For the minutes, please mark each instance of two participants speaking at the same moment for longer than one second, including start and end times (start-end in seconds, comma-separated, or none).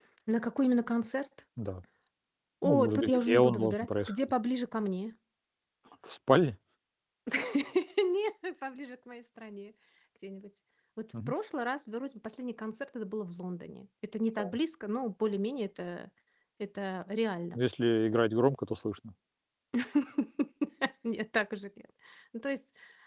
2.6-4.3